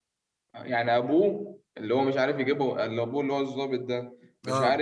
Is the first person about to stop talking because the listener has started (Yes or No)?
No